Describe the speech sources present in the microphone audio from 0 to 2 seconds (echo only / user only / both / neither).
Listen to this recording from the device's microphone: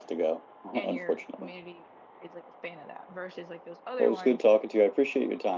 both